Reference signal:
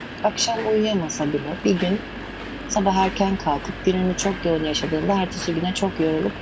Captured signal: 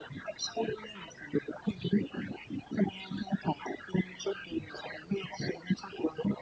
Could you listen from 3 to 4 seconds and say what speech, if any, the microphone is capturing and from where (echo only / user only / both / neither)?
echo only